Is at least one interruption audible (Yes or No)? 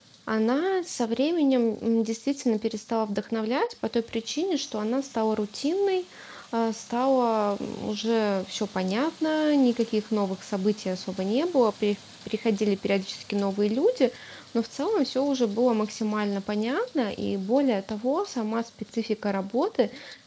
No